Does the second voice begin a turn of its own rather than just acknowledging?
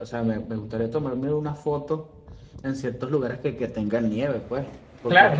Yes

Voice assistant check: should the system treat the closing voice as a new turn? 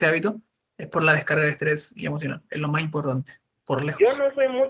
Yes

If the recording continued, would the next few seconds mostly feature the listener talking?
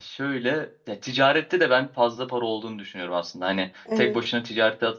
No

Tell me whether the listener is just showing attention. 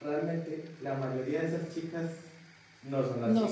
Yes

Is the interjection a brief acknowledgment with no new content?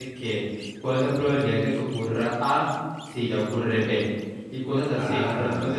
Yes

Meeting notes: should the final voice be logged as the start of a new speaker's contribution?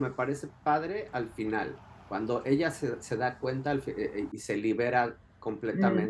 Yes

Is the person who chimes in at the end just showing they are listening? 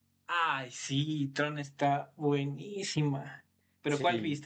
Yes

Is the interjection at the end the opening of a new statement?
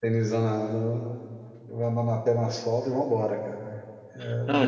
Yes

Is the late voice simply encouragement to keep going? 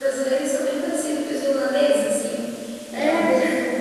Yes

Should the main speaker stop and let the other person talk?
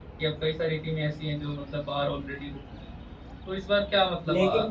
No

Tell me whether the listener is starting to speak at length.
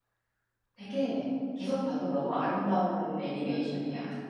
Yes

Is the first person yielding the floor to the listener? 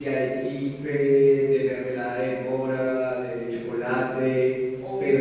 No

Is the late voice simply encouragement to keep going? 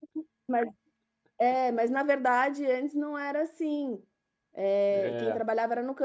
Yes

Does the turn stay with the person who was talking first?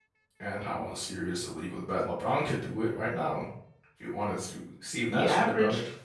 No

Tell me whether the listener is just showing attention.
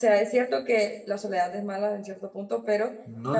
Yes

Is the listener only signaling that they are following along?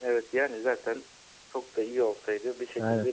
Yes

